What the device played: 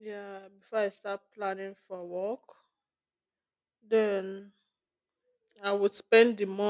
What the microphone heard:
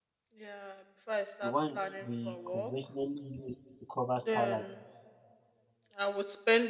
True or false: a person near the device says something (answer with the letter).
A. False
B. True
B